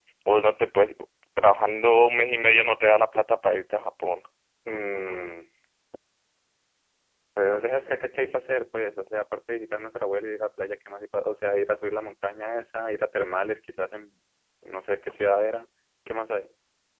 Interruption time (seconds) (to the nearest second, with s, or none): none